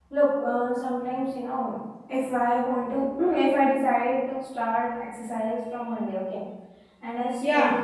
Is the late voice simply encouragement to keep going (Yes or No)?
Yes